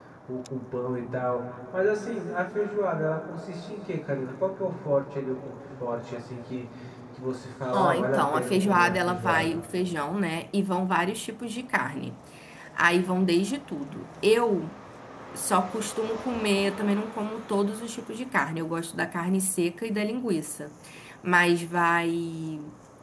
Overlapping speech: Yes, from 7.7 s

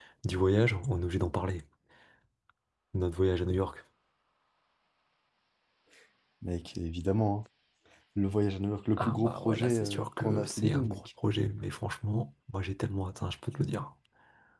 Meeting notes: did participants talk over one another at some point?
Yes, from 9.0 s

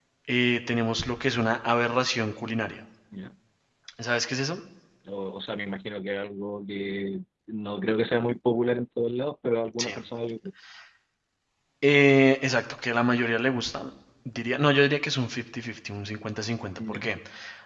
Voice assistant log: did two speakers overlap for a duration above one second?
No

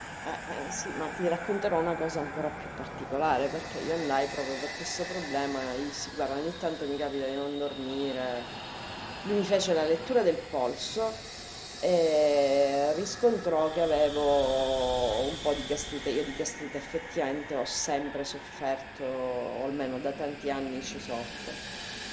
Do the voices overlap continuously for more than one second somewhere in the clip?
No

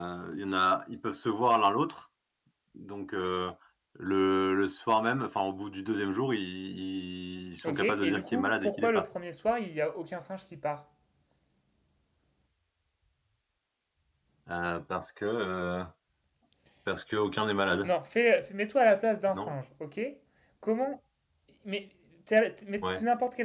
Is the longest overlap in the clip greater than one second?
Yes, from 7.6 s

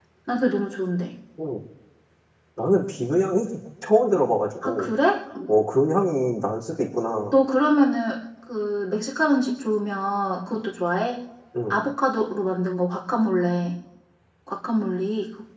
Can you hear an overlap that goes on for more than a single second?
No

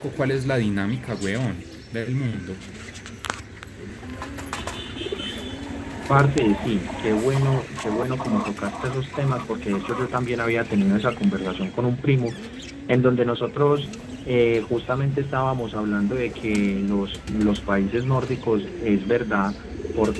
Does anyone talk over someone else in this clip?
No

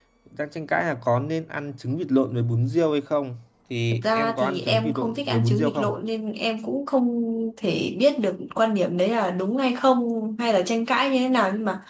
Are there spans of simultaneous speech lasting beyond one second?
Yes, from 4.0 s

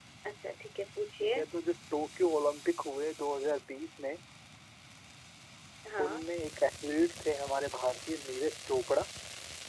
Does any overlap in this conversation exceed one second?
No

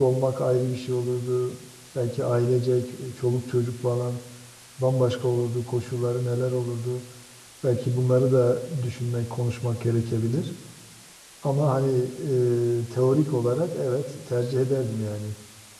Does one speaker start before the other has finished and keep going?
No

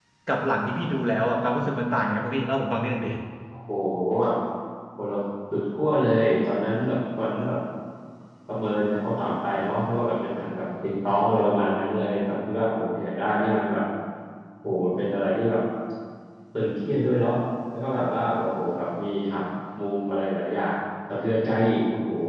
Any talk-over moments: No

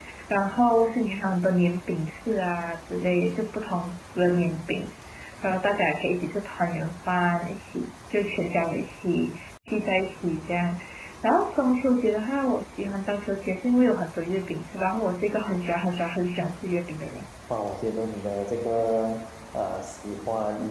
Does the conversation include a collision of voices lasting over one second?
No

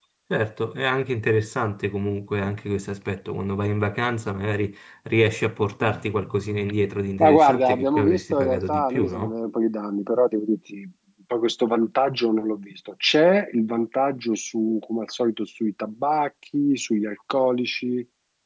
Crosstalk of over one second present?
Yes, from 7.2 s

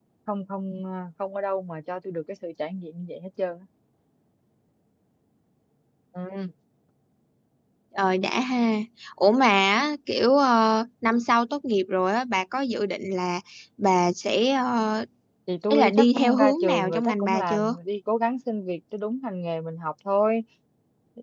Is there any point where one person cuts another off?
Yes, from 15.7 s

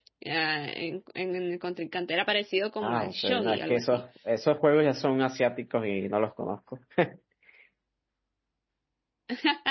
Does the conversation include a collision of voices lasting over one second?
Yes, from 2.8 s

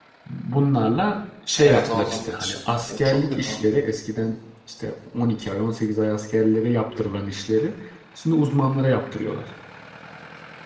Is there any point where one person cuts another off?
Yes, from 1.6 s

